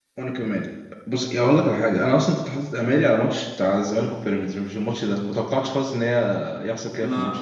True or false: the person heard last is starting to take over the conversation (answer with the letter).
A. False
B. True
B